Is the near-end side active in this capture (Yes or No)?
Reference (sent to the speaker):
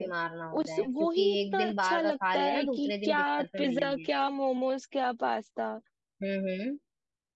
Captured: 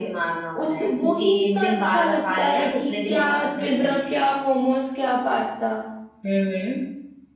No